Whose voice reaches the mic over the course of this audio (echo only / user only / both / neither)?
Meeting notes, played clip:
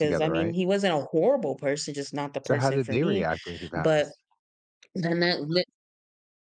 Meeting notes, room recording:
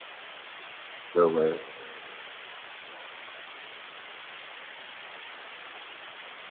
user only